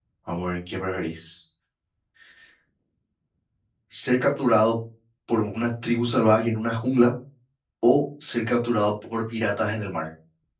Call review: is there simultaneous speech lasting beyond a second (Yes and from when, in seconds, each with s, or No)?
No